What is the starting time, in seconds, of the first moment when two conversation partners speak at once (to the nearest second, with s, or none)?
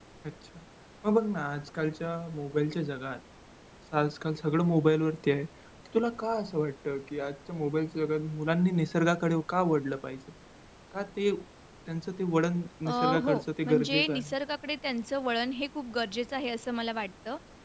13 s